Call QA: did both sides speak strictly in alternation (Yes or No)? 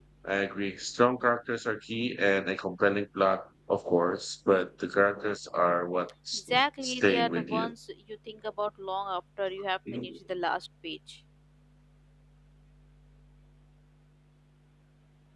No